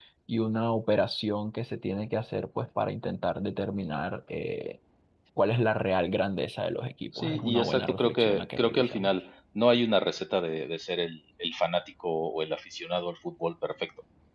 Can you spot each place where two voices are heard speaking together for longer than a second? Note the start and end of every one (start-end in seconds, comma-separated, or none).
7.1-9.2